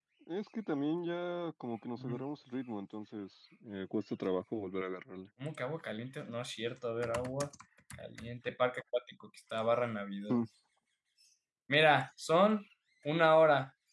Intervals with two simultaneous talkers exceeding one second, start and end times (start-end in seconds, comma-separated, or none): none